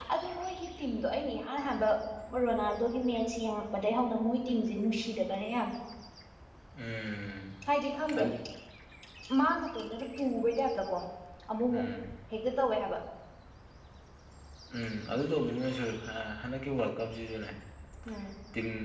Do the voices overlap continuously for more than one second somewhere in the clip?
No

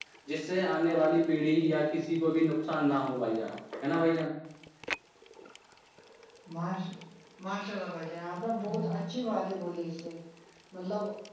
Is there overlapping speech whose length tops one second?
No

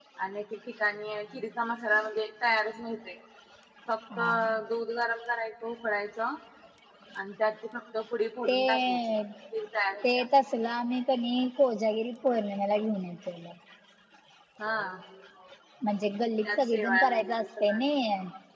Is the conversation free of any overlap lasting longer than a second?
No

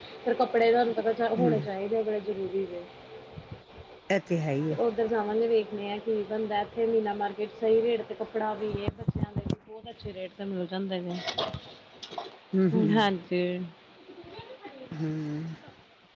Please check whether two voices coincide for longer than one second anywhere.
No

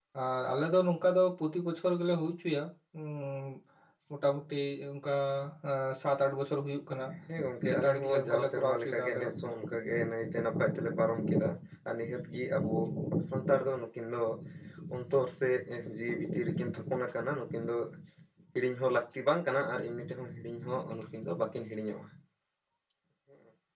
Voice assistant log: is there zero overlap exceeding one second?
No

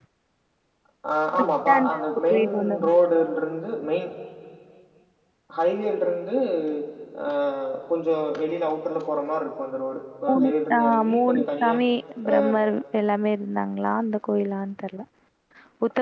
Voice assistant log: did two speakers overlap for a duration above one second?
Yes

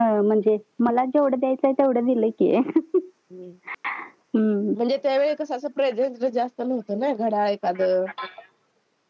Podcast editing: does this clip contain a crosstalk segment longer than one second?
No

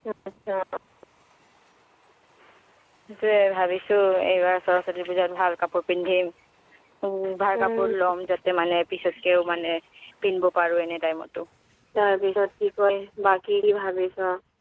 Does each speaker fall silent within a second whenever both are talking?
Yes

